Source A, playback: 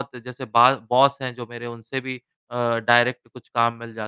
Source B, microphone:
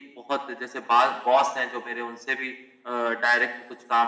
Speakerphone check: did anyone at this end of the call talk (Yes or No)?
No